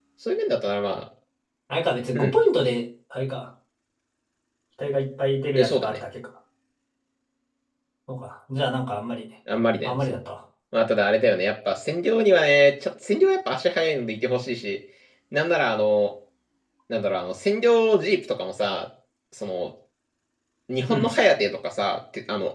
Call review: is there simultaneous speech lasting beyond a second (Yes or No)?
No